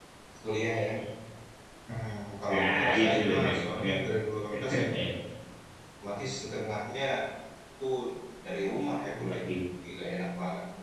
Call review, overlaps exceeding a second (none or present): present